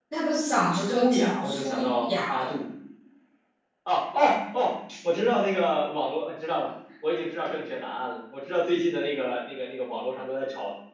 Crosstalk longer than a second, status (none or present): present